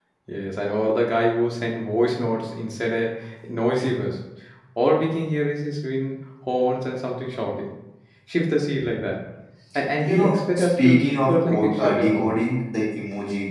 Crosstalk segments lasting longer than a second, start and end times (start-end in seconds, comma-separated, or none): 10.1-12.3